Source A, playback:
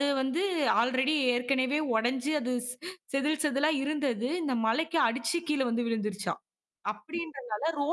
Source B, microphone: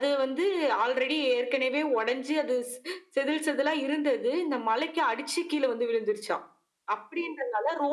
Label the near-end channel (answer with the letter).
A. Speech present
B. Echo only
B